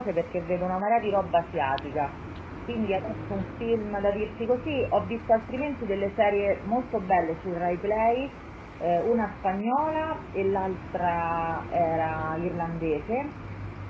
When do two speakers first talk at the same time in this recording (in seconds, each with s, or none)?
none